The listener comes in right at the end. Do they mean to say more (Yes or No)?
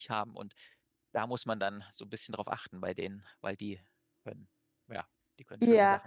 Yes